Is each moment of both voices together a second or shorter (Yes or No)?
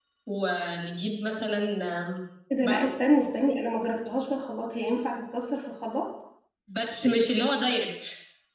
Yes